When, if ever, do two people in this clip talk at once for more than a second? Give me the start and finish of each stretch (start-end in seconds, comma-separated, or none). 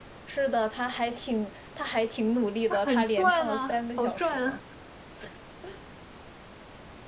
2.7-4.6